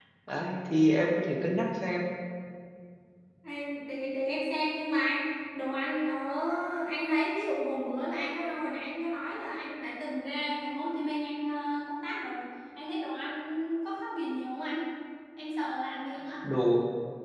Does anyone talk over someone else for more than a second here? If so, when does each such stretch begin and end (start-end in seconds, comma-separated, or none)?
none